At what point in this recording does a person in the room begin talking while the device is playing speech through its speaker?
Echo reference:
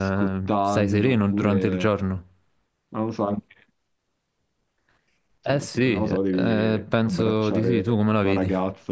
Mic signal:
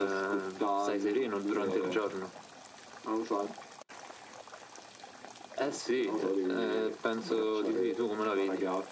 1.6 s

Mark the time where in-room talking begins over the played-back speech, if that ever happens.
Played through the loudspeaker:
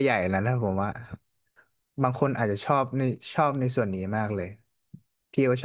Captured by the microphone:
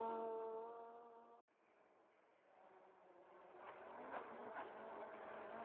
none

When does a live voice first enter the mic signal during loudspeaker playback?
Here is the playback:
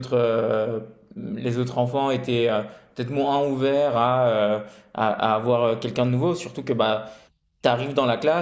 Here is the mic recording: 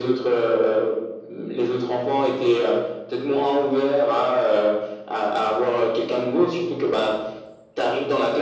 none

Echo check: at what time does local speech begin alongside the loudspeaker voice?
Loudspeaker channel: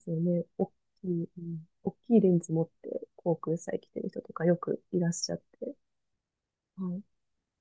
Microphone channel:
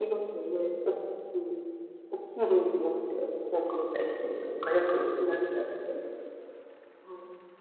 none

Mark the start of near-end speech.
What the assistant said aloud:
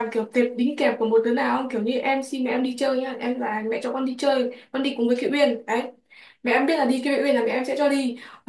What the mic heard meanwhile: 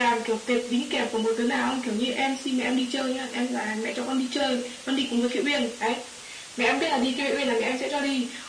none

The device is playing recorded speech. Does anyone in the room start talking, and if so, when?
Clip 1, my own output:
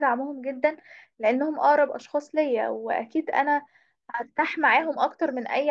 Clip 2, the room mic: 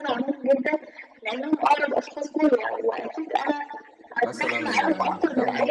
4.2 s

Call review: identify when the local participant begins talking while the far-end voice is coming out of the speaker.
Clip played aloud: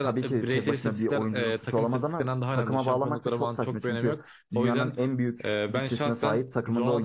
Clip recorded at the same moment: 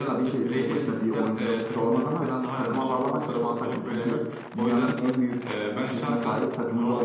none

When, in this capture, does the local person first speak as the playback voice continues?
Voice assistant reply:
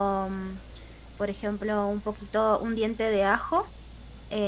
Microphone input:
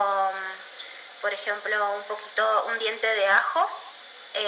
none

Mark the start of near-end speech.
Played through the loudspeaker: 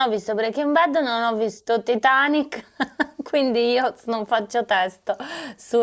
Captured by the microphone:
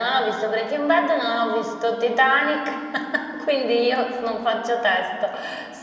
none

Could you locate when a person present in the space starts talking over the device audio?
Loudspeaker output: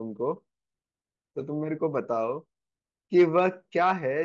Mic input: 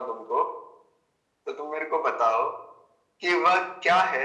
none

